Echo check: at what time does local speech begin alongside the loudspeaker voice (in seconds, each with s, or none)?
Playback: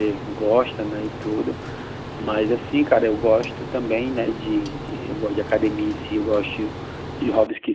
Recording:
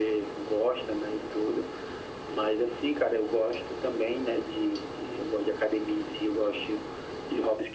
none